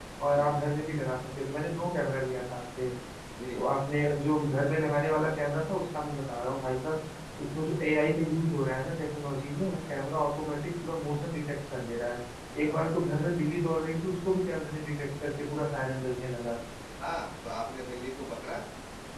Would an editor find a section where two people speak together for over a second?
No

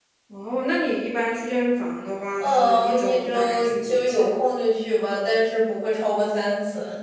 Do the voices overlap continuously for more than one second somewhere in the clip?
Yes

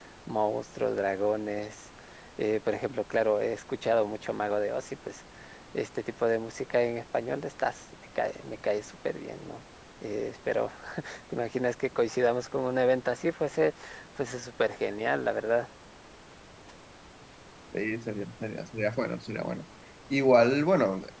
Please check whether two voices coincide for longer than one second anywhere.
No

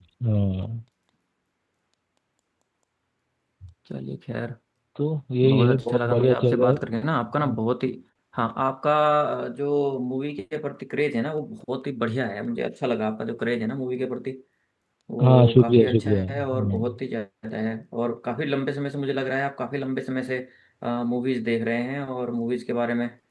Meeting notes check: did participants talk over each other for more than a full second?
Yes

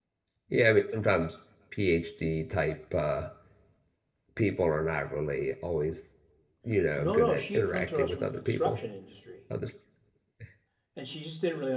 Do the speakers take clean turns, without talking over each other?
No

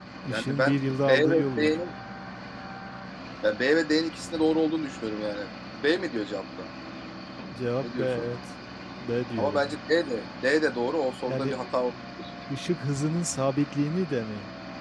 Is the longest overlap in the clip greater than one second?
Yes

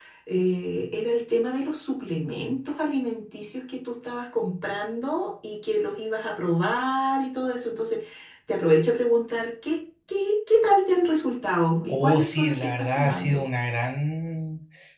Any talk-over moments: Yes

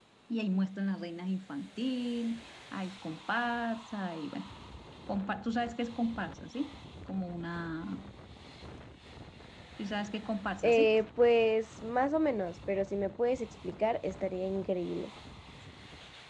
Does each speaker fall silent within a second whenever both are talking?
Yes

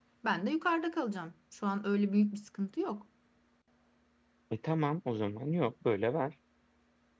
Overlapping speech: No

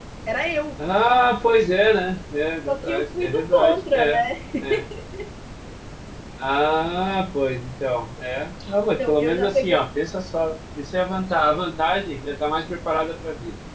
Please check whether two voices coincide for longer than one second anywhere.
Yes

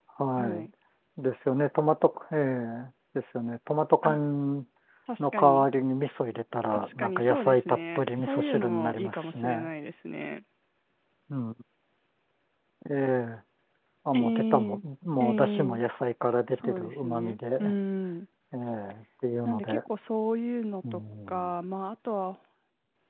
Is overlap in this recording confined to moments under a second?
No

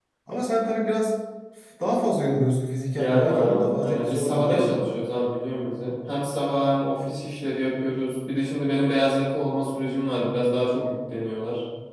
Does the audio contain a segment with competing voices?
Yes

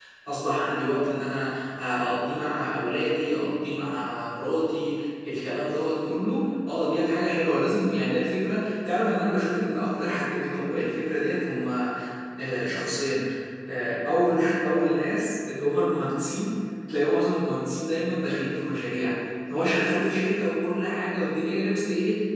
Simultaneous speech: No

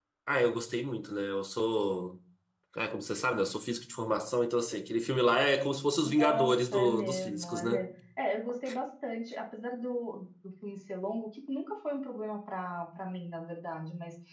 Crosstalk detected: Yes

